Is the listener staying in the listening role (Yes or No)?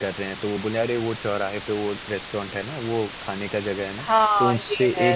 No